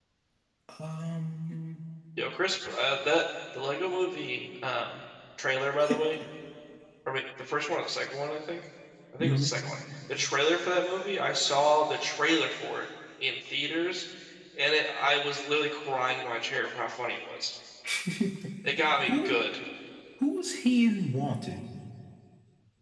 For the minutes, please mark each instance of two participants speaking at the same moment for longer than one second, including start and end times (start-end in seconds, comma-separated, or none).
none